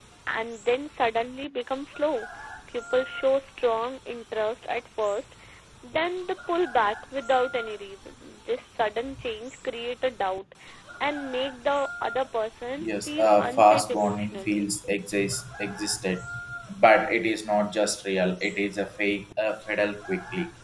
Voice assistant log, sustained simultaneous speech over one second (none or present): present